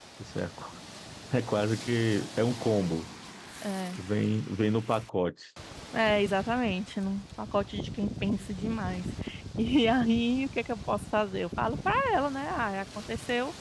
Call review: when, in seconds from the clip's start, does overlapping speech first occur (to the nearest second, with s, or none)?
none